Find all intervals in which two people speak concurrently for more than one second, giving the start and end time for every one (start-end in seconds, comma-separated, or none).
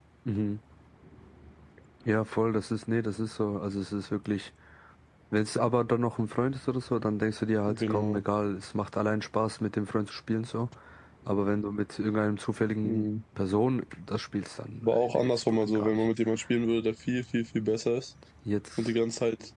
14.8-16.1